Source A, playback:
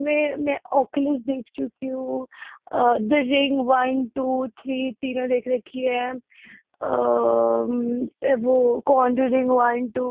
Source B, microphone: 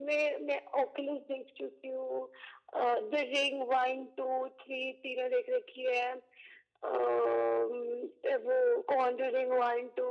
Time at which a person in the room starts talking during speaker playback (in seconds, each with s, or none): none